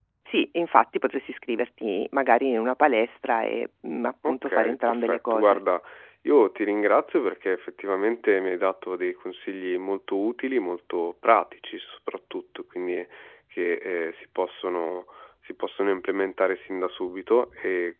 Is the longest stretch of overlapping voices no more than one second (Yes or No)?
No